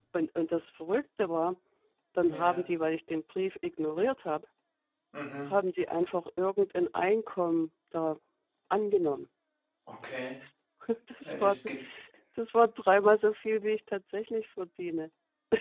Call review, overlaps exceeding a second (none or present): none